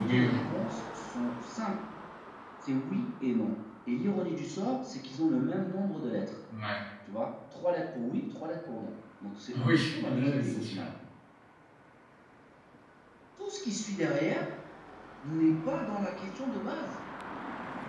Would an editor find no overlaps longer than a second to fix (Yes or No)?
No